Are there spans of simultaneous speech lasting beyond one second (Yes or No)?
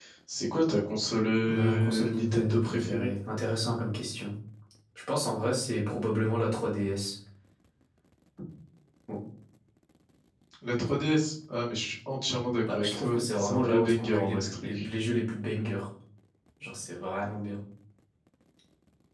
Yes